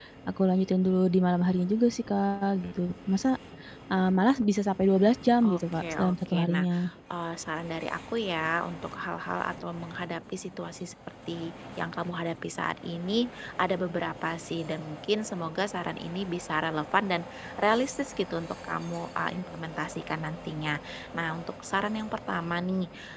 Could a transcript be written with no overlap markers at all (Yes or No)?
No